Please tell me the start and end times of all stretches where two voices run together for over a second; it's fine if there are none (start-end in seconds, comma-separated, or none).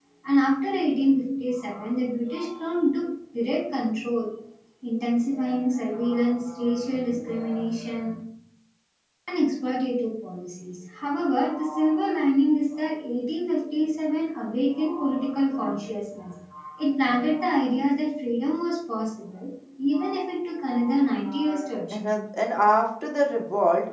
none